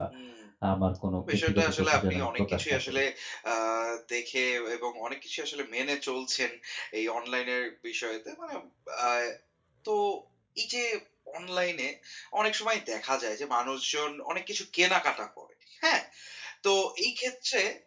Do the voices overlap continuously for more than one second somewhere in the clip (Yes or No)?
Yes